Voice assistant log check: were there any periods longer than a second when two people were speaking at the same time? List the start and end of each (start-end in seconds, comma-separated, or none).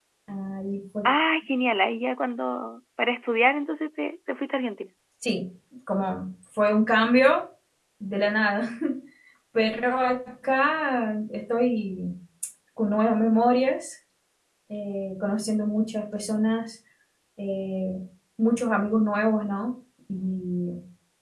none